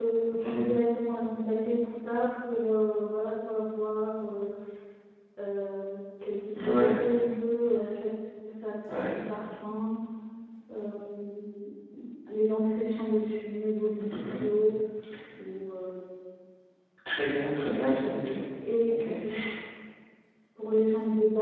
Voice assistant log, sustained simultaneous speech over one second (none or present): present